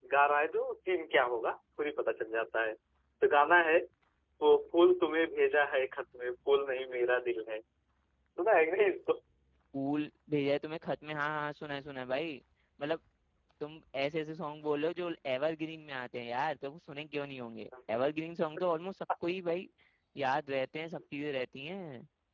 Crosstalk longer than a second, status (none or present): none